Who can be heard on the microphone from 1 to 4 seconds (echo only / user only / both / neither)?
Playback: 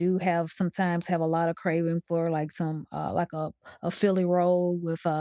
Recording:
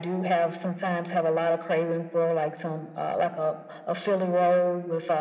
echo only